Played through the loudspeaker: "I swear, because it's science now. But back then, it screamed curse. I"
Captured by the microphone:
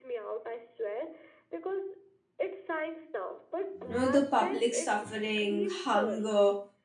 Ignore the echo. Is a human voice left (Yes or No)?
Yes